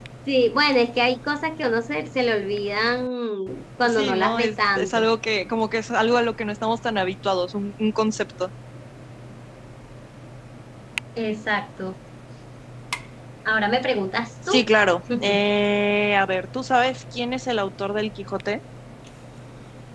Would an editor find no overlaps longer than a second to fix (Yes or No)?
No